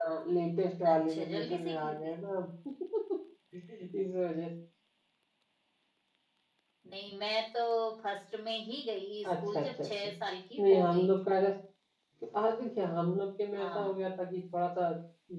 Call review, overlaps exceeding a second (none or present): present